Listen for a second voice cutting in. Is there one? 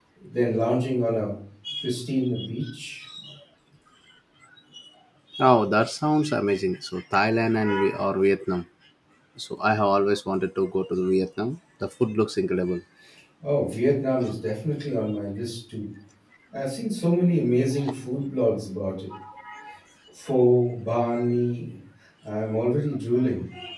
No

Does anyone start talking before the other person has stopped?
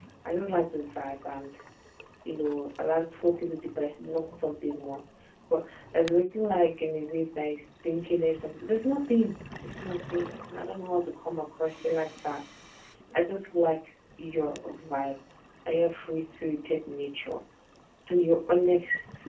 No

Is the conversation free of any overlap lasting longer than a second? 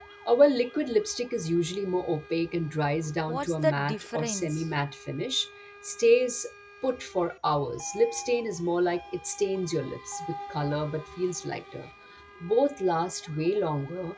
No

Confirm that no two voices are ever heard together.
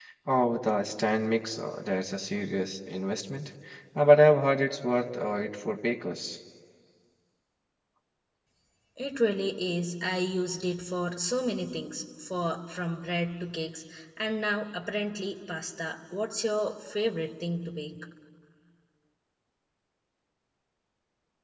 Yes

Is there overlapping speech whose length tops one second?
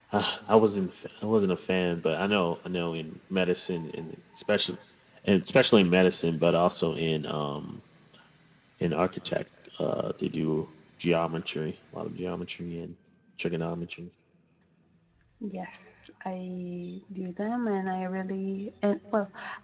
No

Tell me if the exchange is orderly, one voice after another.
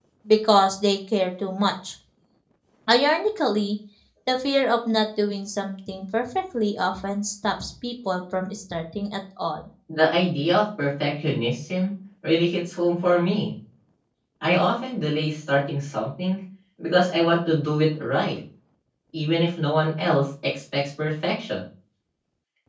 Yes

